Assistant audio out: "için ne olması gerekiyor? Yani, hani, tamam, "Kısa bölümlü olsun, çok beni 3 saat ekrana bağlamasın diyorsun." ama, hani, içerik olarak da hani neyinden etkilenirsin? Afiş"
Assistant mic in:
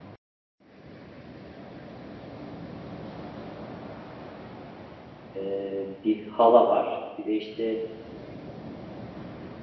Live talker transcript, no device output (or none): eee, bir hala var. Bir de, işte,